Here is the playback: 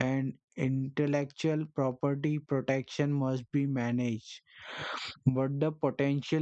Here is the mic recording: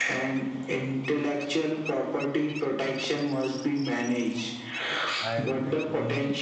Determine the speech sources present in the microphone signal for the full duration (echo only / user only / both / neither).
both